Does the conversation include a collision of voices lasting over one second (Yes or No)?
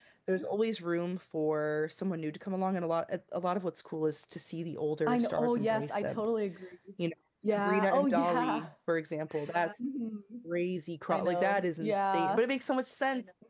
Yes